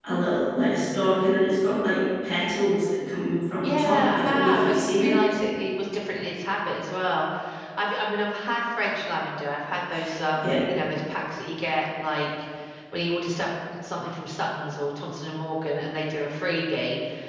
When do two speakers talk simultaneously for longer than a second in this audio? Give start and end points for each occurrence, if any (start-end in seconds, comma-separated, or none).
3.6-5.2